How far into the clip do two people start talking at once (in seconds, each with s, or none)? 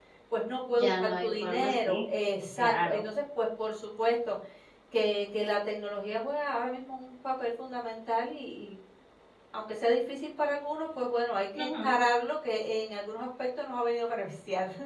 0.8 s